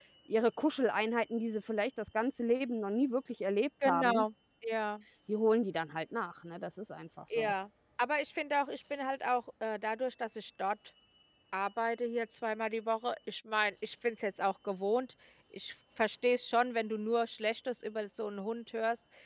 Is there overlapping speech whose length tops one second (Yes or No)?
No